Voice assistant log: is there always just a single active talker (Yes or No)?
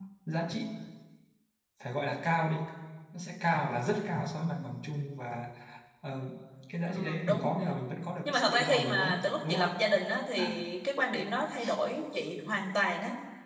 No